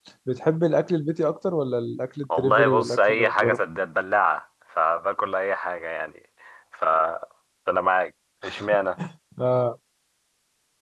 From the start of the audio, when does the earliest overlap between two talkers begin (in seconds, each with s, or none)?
2.3 s